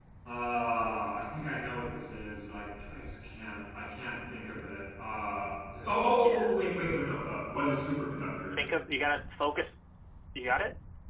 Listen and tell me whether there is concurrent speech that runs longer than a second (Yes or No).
No